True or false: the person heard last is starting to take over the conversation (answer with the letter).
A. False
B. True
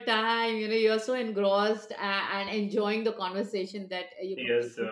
B